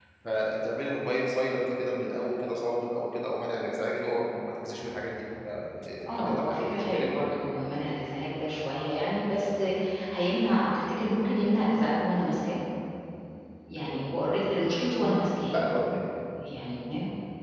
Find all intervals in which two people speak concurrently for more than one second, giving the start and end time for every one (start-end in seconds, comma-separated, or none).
6.1-7.4